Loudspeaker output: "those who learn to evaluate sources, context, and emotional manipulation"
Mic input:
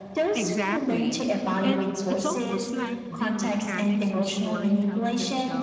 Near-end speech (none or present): present